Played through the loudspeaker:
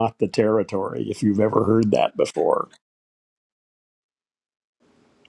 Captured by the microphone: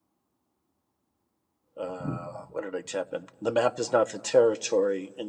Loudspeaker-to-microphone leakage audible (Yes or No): No